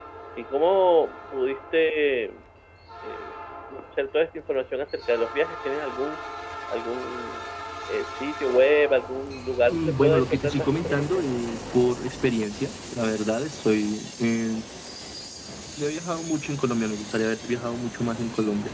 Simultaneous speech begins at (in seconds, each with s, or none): 9.7 s